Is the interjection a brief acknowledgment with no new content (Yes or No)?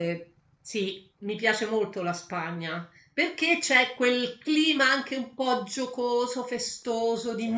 Yes